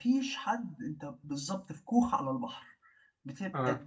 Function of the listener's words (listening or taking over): listening